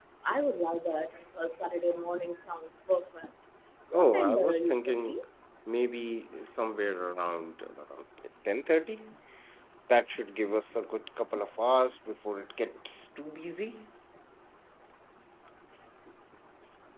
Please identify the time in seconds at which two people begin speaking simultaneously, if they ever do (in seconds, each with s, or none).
3.9 s